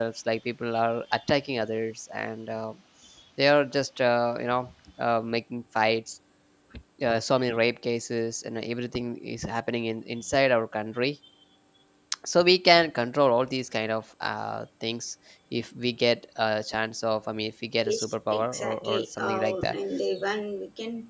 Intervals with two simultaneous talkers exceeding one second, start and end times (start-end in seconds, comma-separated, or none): 17.9-19.8